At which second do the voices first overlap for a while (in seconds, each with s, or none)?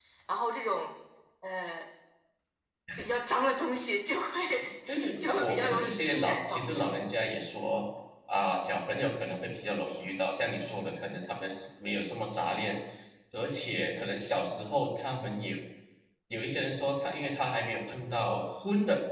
4.9 s